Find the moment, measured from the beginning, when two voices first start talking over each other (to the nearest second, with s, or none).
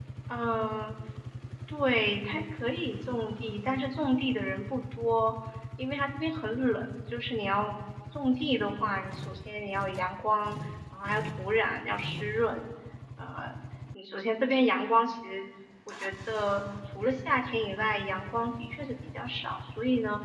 none